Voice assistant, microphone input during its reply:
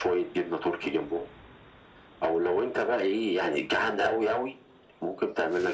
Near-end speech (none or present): none